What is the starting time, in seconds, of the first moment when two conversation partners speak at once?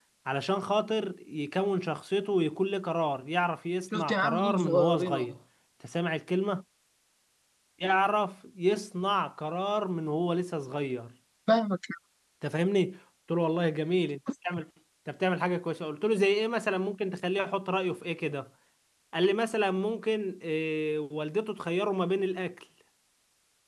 3.9 s

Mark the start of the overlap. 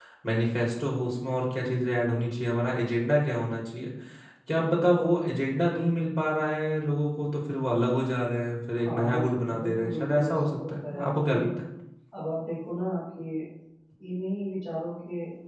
8.7 s

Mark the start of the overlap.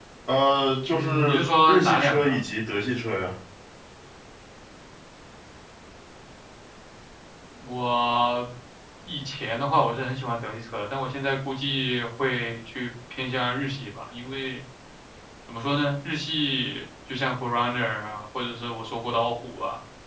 0.9 s

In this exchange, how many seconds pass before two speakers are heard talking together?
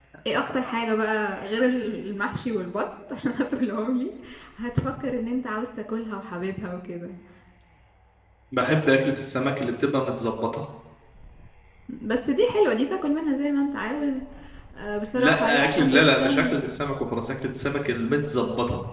15.2 s

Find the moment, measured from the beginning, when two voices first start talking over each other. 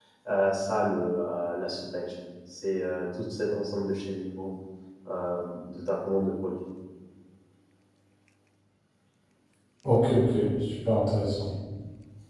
none

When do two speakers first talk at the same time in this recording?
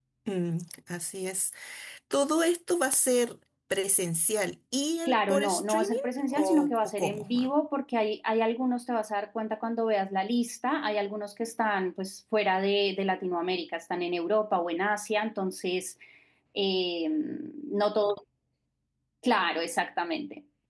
5.1 s

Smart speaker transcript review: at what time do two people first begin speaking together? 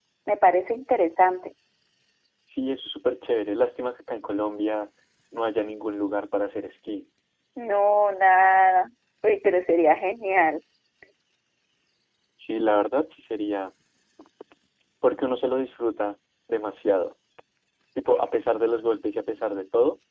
none

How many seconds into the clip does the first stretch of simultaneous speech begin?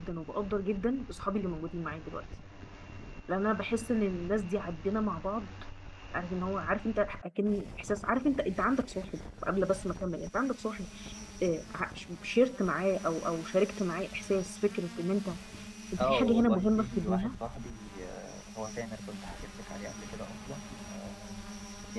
16.0 s

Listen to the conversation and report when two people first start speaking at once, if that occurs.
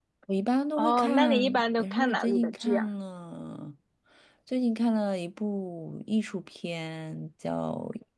0.8 s

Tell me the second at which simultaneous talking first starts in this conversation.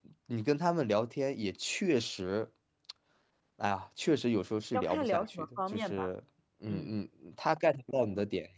4.7 s

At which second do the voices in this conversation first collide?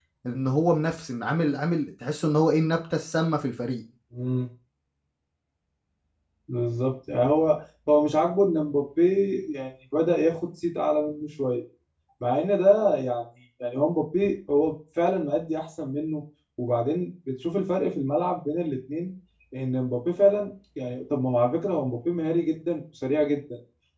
none

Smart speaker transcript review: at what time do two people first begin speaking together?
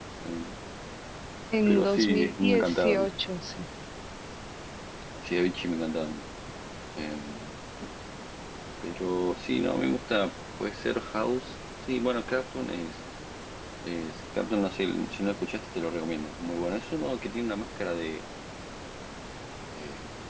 1.7 s

